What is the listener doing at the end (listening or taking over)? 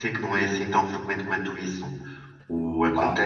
listening